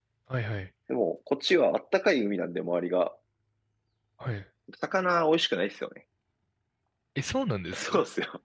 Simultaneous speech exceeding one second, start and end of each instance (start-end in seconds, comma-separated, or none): none